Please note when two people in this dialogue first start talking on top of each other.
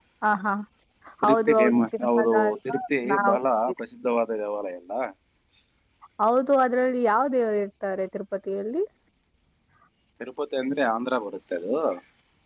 1 s

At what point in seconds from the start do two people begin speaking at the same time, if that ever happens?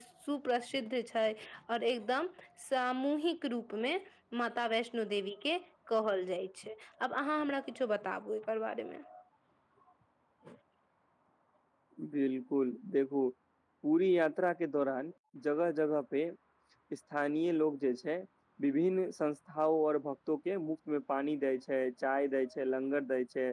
none

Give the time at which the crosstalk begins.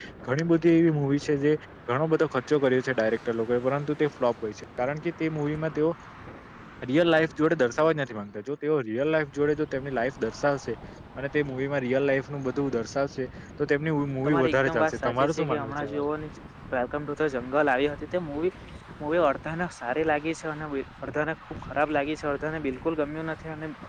14 s

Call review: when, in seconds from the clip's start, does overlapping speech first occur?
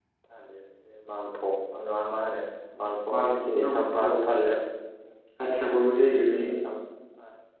3 s

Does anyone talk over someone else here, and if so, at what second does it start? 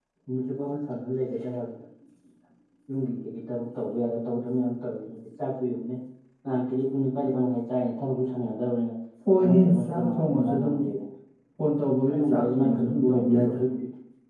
9 s

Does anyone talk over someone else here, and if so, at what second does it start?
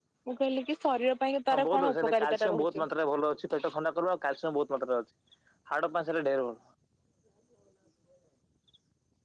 2 s

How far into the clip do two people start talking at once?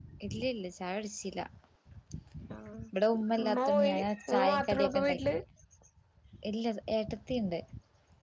3 s

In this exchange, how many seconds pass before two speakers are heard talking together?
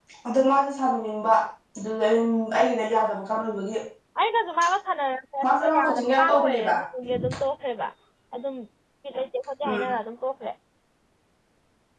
5 s

